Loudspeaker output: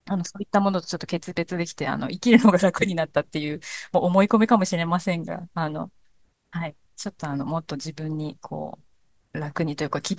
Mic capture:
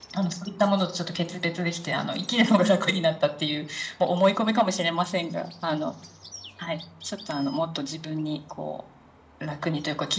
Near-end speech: none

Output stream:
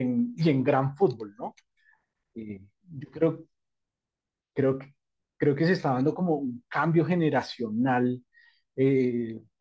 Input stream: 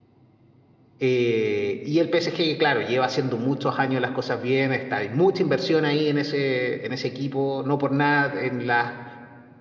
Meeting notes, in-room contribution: present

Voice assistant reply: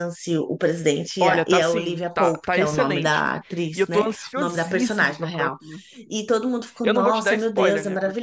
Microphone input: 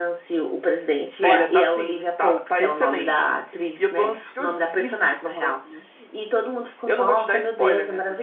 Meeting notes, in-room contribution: present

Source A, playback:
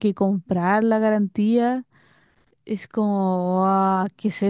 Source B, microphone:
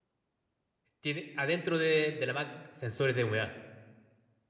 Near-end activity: present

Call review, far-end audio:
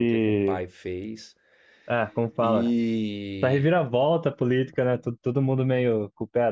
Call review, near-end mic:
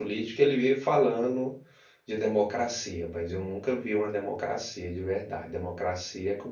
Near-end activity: present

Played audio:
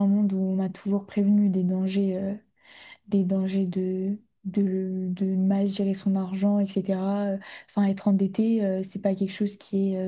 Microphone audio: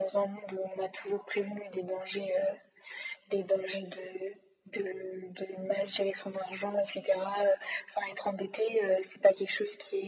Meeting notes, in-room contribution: none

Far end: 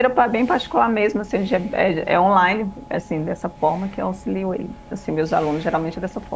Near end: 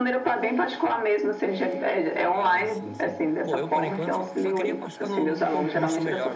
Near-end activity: present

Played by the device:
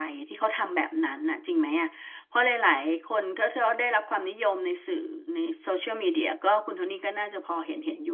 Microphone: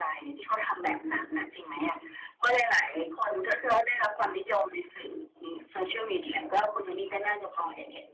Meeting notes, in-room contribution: none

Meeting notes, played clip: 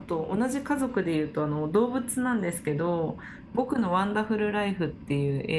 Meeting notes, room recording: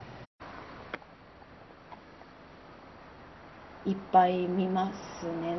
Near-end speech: present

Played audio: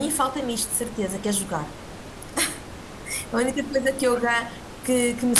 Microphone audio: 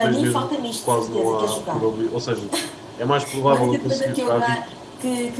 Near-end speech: present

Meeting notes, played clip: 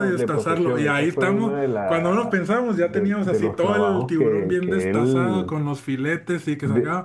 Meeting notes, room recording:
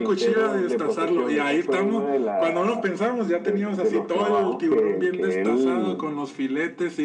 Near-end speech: none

